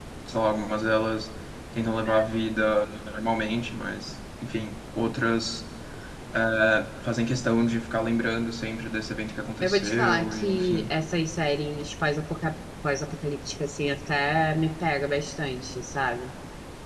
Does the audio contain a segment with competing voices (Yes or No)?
Yes